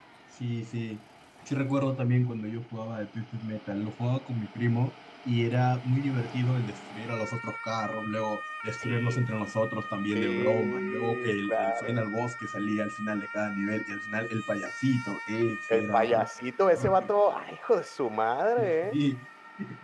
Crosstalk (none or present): present